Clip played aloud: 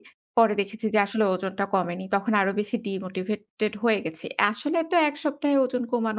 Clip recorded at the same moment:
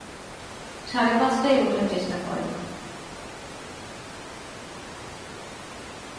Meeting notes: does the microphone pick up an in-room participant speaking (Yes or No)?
Yes